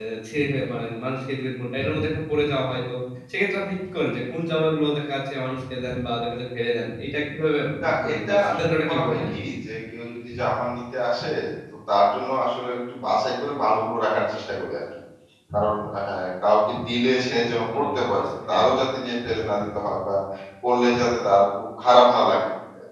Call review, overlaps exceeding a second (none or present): present